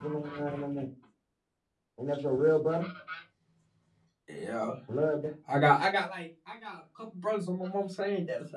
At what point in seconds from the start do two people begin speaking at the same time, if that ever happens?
none

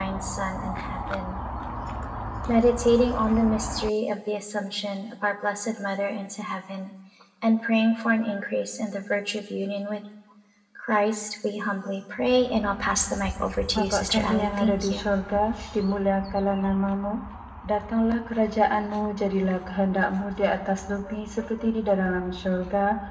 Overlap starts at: 13.7 s

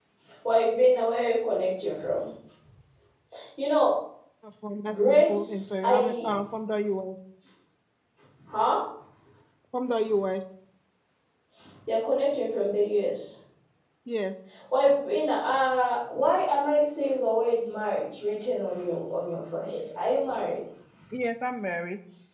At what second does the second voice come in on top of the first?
4.9 s

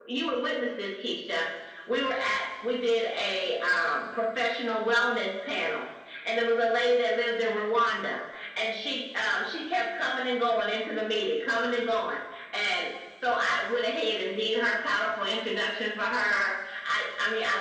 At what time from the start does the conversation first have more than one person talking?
none

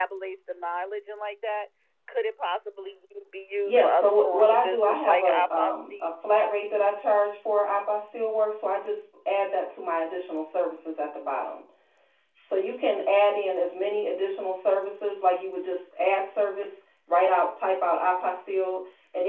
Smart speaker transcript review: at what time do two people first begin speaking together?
3.6 s

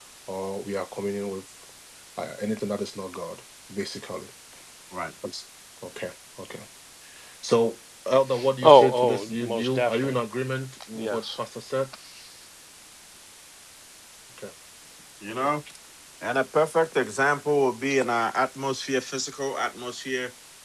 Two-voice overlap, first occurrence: 8.6 s

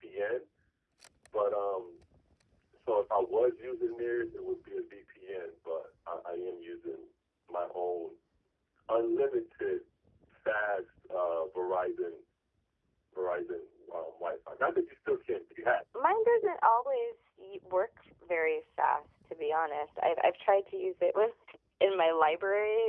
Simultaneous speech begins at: none

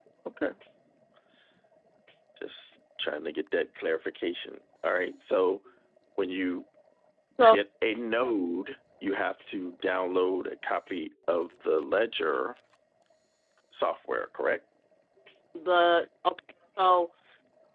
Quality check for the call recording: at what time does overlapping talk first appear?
none

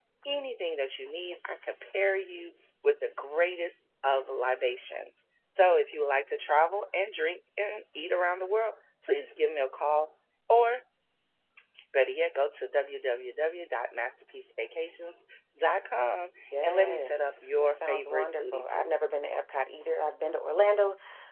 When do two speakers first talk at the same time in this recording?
16.5 s

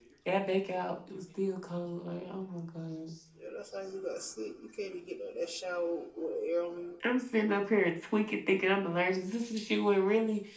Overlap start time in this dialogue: none

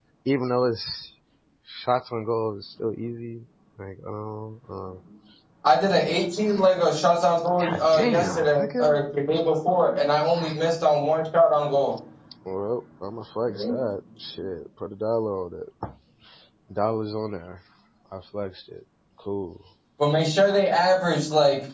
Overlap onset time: 7.6 s

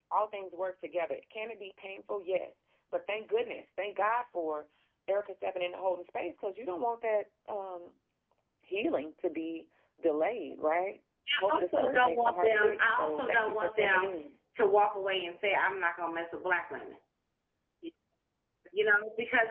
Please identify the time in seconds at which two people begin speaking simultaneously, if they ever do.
11.3 s

